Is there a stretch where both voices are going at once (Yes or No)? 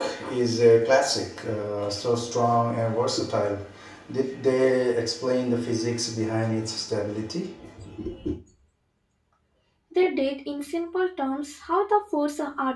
No